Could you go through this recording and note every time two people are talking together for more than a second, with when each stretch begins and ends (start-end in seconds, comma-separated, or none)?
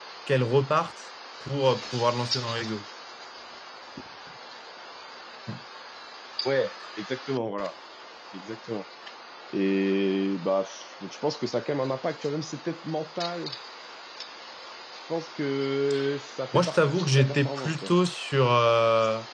16.5-17.9